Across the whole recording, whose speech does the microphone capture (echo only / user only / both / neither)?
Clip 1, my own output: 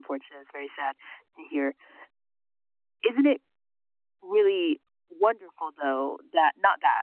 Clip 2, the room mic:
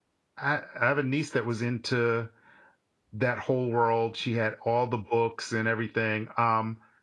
user only